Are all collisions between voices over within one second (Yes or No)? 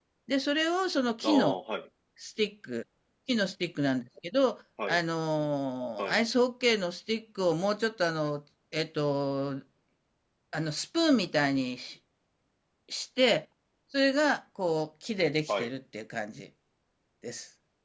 Yes